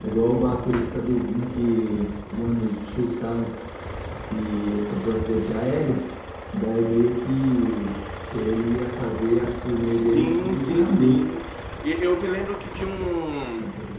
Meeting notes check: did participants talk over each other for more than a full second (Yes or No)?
Yes